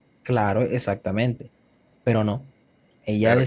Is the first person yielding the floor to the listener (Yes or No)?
No